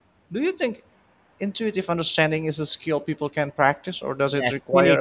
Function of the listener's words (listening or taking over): taking over